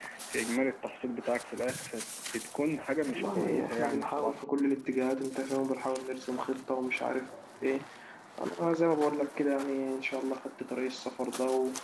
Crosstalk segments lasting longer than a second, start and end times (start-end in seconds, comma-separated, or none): 3.1-4.4